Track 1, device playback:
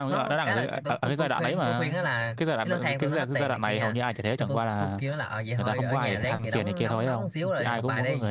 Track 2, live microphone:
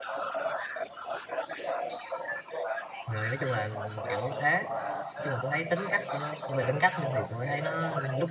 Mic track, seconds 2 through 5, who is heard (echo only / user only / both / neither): both